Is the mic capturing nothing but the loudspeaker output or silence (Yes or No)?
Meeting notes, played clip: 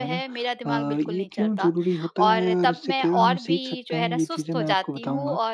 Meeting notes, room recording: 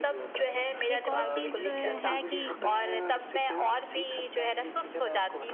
No